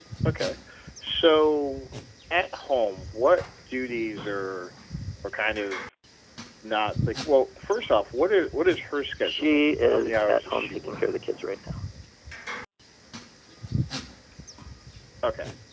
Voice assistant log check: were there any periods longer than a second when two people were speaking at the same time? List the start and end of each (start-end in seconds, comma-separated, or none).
9.2-11.0